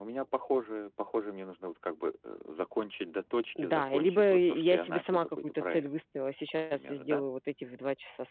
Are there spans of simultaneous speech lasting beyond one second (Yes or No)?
Yes